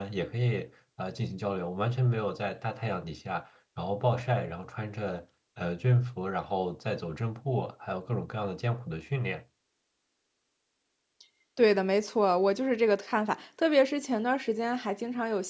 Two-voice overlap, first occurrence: none

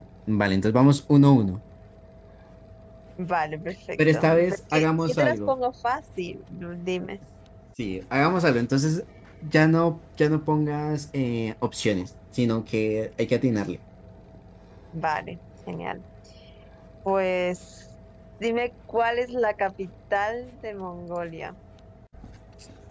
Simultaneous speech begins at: 4.0 s

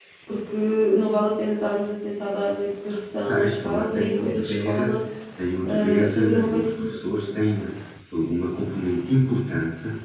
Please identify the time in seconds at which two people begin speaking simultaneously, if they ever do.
3.3 s

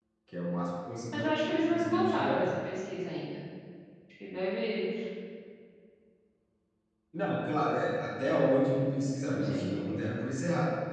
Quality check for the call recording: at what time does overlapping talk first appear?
1.1 s

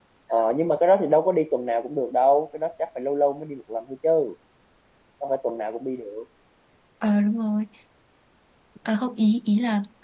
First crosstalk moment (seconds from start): none

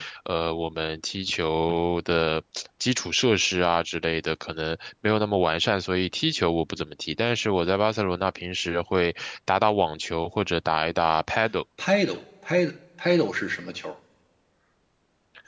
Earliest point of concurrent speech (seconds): none

